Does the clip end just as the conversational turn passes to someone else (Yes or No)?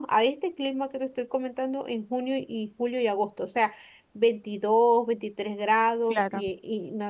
No